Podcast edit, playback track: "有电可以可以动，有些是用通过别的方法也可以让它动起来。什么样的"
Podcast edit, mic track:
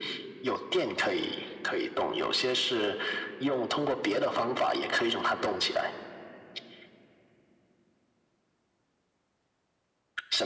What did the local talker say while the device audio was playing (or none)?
none